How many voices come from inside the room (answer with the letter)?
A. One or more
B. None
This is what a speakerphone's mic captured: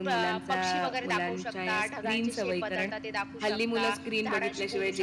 B